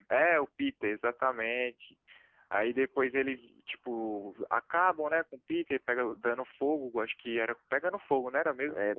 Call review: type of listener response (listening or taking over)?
taking over